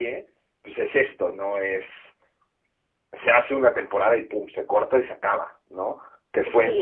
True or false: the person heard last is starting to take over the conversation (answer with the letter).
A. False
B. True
A